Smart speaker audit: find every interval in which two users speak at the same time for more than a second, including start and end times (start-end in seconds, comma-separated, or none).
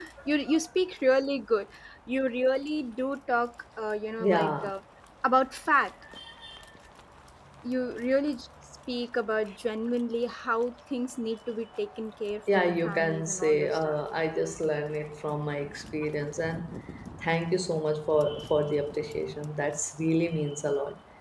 12.5-14.0